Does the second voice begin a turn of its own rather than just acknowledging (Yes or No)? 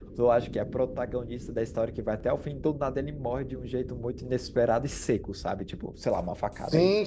No